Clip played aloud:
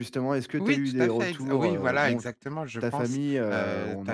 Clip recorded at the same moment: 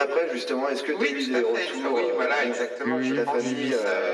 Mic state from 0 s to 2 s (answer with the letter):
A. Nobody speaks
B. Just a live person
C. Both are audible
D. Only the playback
D